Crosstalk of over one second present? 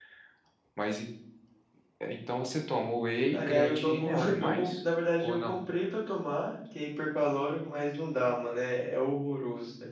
Yes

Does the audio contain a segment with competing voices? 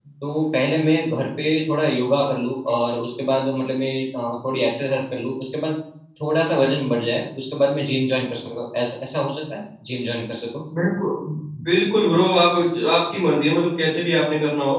No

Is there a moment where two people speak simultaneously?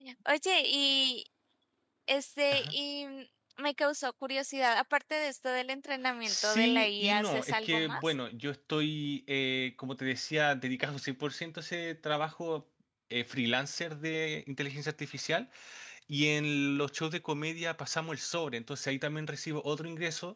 Yes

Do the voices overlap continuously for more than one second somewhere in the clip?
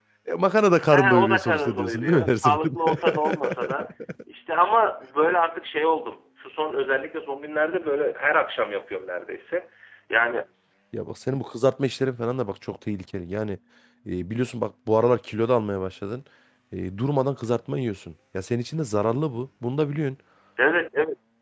Yes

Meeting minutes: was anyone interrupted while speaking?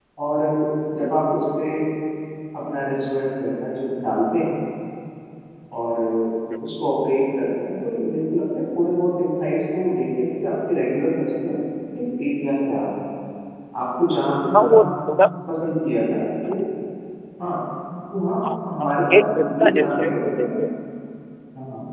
Yes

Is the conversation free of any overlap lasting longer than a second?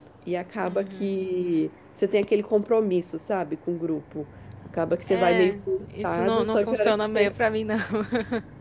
No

